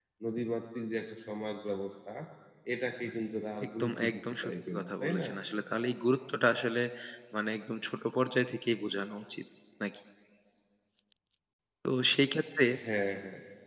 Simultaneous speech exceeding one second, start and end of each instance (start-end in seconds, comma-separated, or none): 3.8-5.3